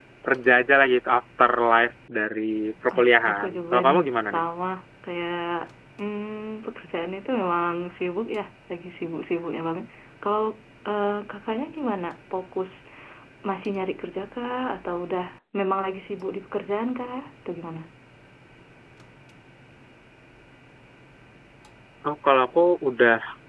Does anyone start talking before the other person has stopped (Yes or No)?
Yes